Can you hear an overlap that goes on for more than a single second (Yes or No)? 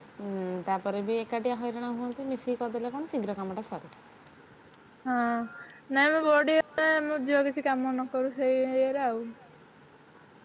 No